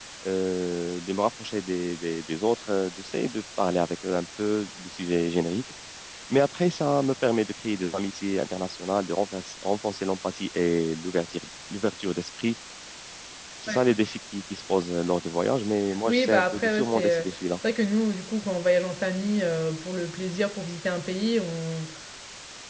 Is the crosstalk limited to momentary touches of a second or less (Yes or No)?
No